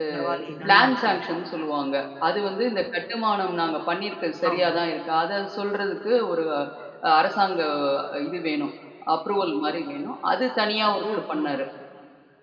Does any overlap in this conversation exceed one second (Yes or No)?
No